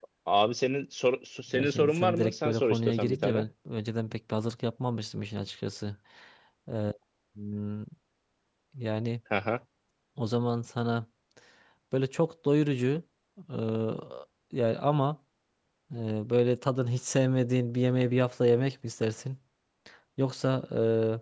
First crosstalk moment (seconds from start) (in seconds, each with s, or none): 1.5 s